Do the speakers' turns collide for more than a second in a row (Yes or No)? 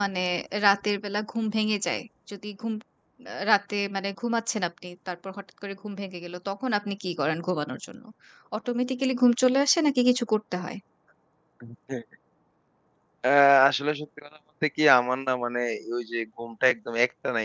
No